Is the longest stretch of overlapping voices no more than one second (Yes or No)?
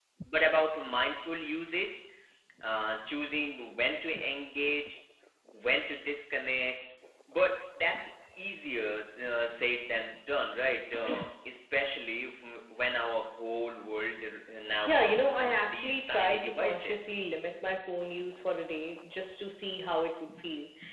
No